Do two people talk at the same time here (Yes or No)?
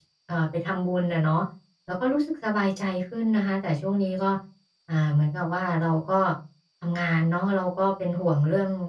No